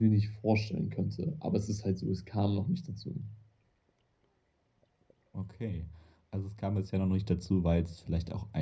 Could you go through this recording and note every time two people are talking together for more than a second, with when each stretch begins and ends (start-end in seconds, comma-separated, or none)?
none